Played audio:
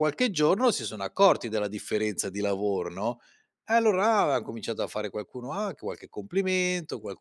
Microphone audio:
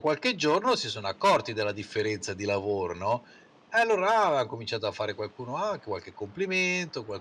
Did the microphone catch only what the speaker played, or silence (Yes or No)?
Yes